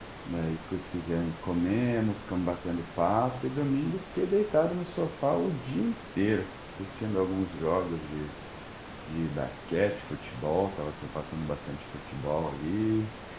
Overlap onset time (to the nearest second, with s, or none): none